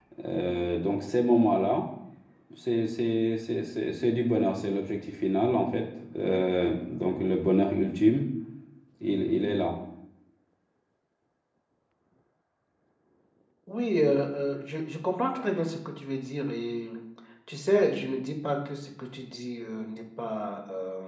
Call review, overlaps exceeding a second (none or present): none